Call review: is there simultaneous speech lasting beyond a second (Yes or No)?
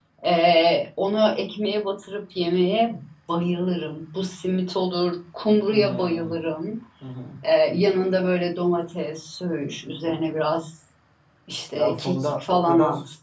Yes